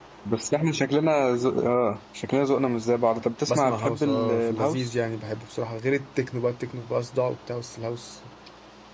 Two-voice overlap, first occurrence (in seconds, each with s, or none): 3.5 s